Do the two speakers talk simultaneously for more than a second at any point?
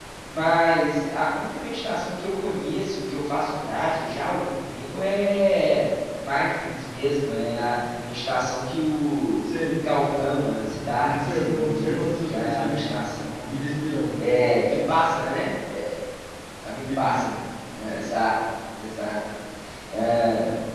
Yes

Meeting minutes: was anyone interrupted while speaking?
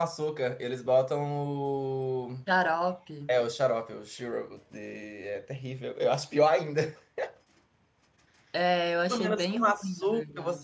Yes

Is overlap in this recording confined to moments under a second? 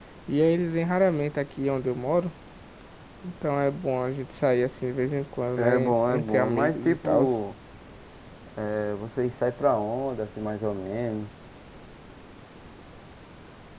No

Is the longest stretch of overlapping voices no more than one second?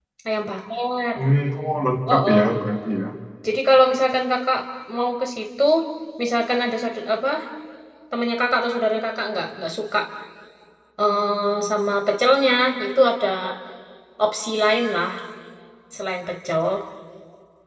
Yes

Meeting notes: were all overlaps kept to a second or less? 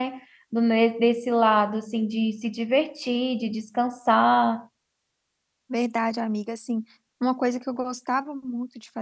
Yes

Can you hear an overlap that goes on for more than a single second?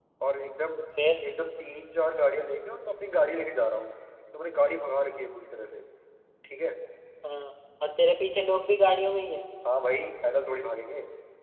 No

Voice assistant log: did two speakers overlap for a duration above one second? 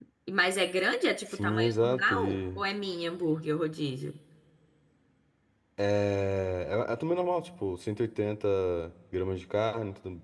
Yes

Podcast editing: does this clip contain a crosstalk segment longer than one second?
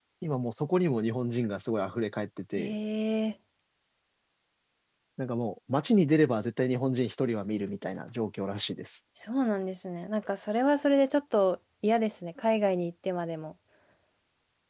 No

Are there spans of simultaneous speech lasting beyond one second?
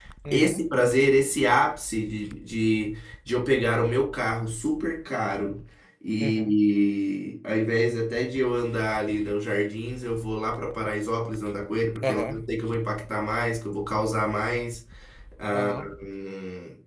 No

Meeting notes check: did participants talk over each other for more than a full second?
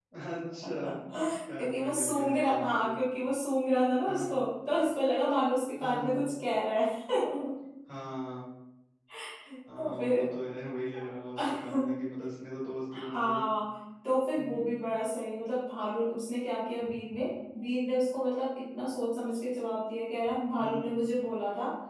Yes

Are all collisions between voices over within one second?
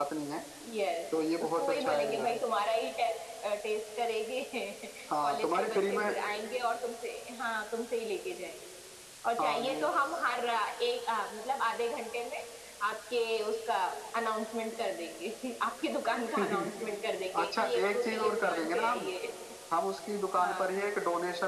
No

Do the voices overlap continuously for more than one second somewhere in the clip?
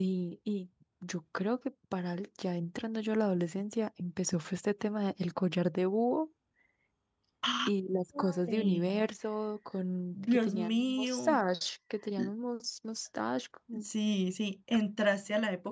Yes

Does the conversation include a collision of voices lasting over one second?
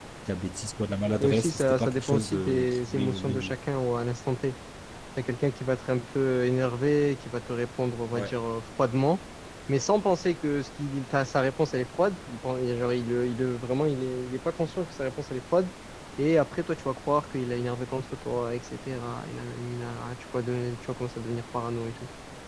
Yes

